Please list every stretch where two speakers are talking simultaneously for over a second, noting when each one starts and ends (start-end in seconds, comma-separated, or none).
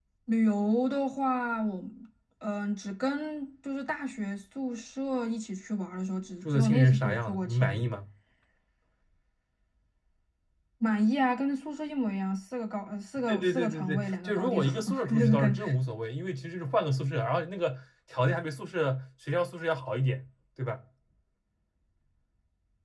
6.5-7.9, 13.3-15.5